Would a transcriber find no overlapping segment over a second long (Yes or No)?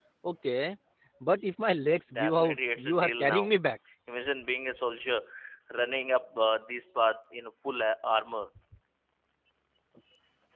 No